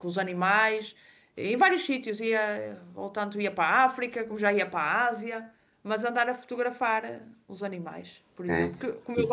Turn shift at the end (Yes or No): No